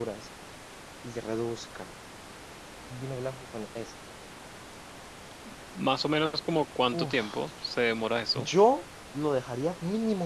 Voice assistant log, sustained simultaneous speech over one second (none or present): none